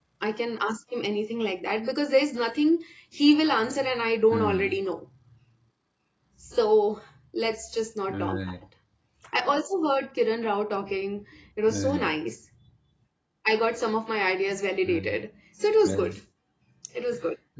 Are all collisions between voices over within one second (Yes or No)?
Yes